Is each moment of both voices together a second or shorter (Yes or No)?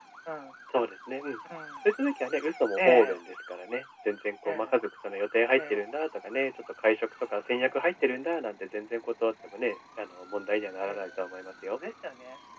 Yes